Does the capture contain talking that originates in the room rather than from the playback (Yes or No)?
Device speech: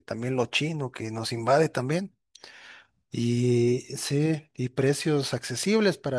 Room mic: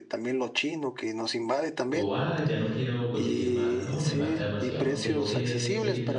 Yes